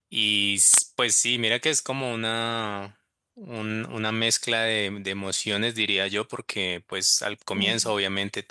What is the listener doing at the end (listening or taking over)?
listening